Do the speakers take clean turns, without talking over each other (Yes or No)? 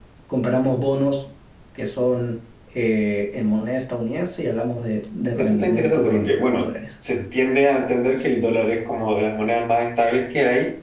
No